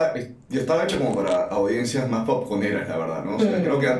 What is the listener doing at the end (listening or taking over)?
listening